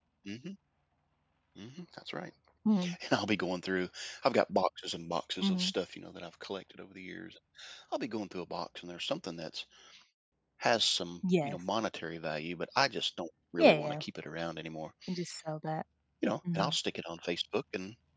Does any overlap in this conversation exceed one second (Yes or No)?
No